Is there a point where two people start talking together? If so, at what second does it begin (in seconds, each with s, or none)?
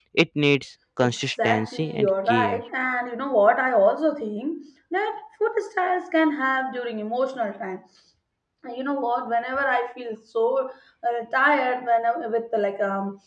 1.0 s